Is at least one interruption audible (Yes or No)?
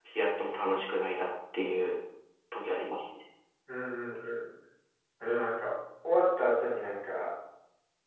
No